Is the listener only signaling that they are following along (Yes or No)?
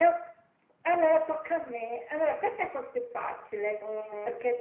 Yes